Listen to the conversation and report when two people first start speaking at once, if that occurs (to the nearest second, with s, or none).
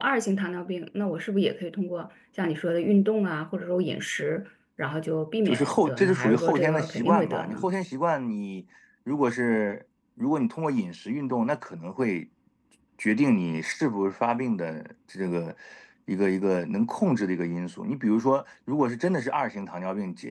5 s